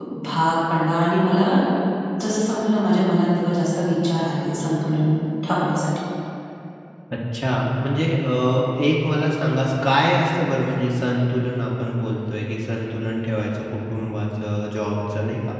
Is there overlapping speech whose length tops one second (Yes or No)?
No